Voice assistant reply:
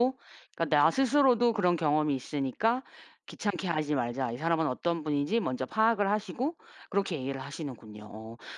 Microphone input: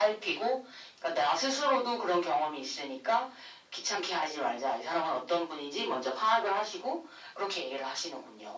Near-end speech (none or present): none